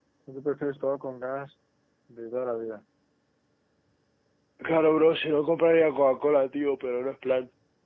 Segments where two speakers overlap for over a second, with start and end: none

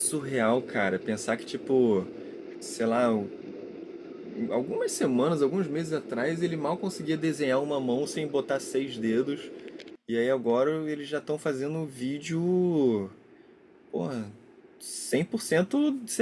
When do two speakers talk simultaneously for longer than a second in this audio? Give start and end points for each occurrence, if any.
none

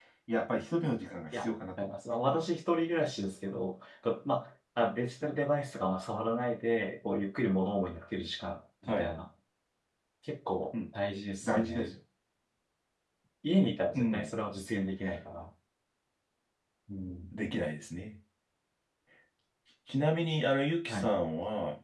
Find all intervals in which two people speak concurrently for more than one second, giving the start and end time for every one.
none

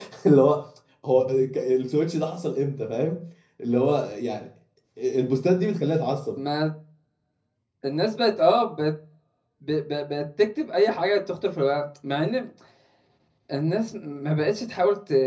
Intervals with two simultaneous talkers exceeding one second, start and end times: none

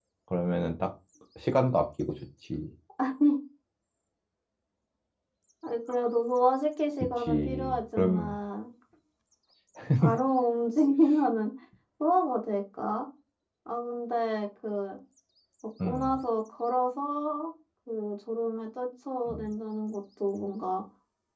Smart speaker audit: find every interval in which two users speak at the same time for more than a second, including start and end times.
7.2-8.4

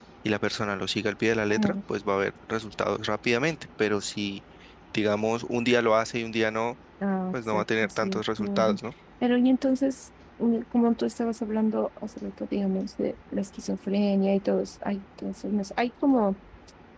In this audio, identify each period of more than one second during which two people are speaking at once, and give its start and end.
7.3-8.8

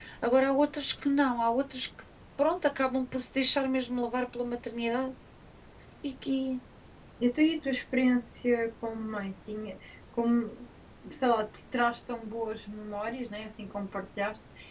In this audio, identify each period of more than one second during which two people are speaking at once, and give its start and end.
none

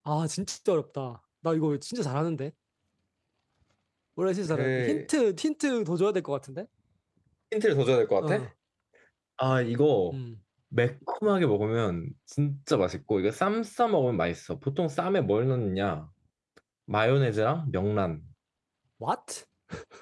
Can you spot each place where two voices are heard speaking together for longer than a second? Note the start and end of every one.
none

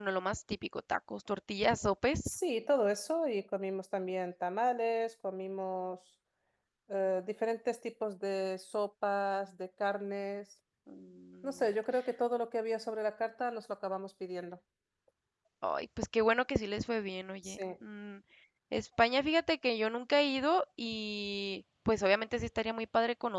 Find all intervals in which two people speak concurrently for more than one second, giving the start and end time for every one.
none

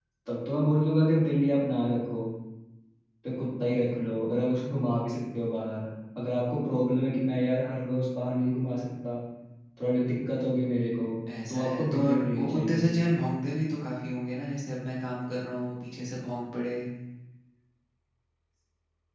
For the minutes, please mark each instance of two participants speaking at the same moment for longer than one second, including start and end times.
11.5-12.9

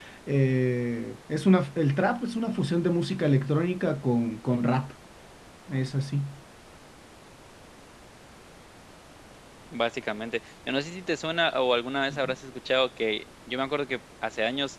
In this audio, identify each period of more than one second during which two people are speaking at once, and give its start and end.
none

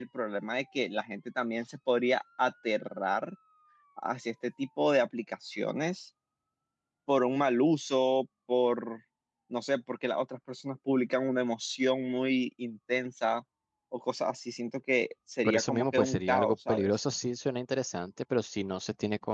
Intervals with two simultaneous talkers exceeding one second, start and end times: 15.4-16.9

